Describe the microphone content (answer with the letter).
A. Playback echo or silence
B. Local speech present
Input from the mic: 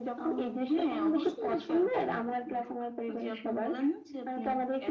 A